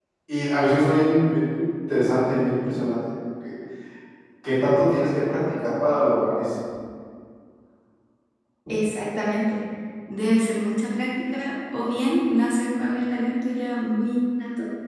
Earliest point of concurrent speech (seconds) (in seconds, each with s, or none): none